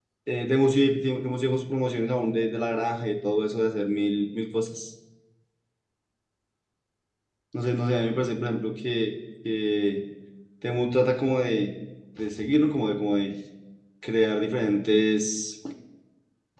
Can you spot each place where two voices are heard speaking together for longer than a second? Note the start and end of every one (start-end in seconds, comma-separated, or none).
none